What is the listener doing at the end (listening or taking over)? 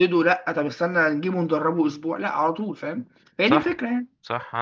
taking over